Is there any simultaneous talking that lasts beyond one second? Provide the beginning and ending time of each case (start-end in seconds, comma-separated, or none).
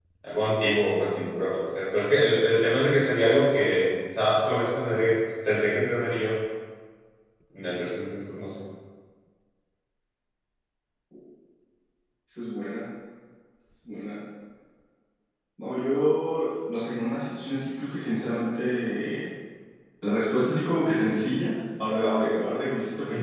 none